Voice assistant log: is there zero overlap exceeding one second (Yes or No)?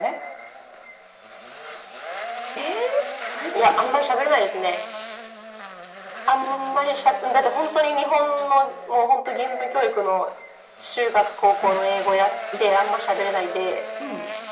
Yes